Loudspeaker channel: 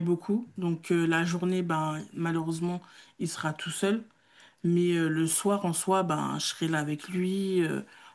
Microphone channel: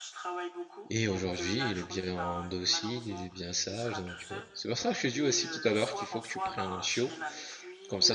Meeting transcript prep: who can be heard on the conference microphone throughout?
both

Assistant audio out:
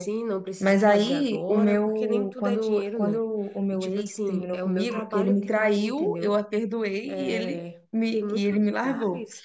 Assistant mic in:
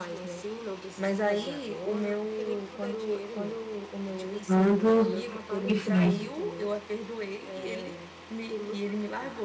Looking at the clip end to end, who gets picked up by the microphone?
both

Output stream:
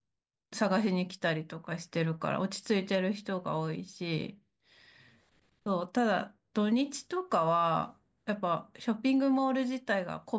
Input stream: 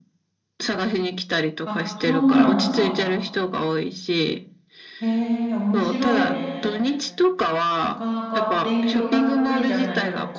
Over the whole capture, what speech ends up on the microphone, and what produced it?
both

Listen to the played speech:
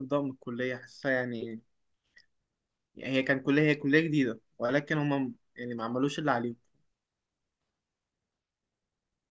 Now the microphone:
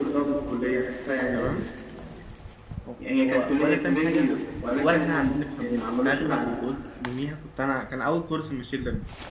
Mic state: both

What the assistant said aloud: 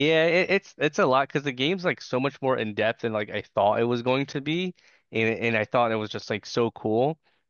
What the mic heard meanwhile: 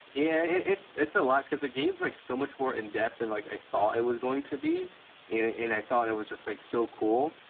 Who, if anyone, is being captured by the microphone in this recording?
echo only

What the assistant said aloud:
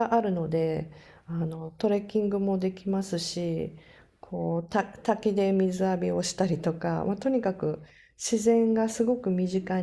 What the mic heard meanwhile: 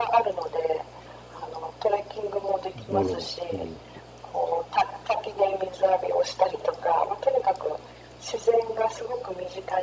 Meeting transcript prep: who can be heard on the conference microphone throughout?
both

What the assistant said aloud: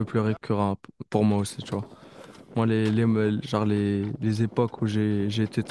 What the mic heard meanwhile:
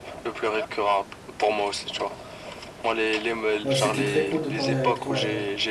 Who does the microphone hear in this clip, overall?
both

